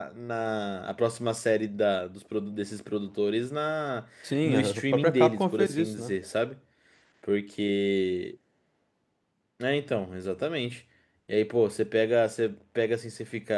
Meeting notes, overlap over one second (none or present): present